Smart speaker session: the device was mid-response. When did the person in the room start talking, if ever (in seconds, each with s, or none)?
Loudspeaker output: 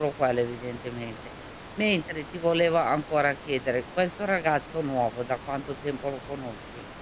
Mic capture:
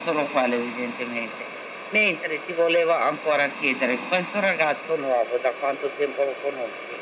none